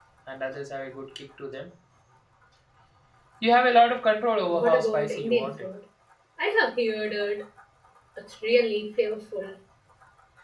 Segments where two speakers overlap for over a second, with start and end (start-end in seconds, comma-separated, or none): 4.4-5.7